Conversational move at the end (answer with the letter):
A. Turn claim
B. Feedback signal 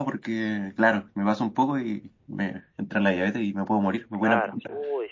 A